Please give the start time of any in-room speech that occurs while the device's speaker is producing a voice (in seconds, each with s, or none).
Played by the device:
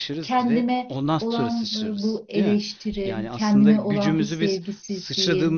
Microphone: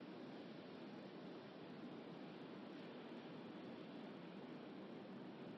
none